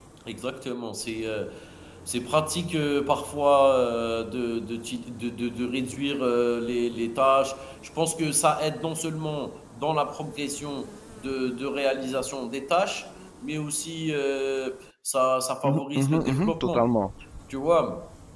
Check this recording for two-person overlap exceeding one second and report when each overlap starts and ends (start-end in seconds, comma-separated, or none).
15.6-16.9